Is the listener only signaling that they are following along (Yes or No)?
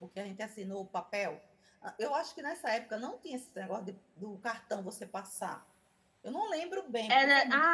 No